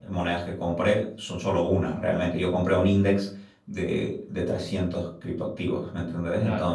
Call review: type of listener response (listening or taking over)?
listening